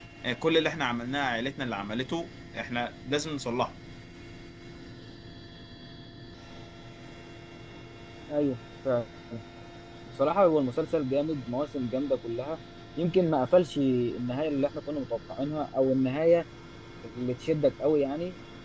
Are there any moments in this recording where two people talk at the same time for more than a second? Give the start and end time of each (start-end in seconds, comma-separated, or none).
none